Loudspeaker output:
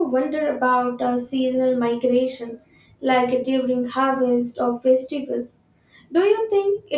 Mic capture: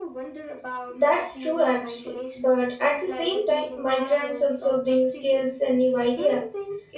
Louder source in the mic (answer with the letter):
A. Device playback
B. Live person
B